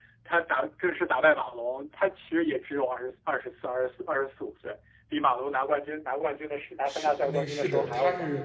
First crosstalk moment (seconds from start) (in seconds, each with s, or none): 6.9 s